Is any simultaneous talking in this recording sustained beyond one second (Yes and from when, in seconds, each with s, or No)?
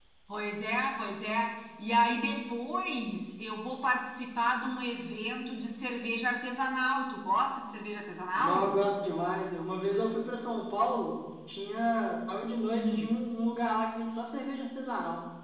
No